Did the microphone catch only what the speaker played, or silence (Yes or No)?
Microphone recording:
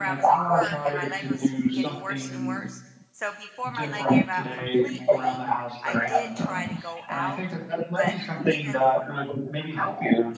No